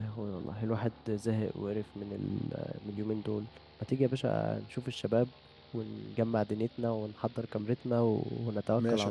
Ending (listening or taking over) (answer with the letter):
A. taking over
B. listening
A